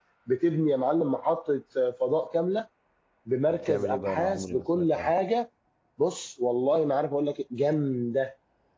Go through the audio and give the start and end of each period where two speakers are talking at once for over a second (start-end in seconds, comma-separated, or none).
3.5-5.1